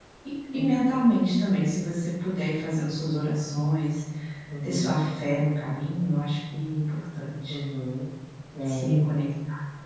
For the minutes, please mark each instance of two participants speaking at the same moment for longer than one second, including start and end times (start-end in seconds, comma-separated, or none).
none